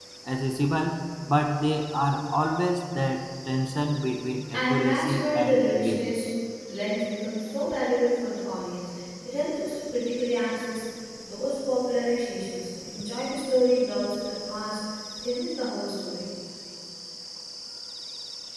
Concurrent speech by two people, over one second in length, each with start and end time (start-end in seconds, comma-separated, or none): 4.5-6.2